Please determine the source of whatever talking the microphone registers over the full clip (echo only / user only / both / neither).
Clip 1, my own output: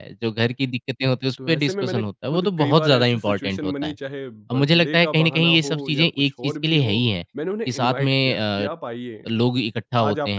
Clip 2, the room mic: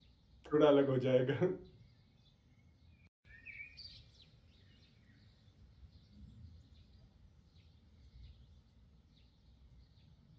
user only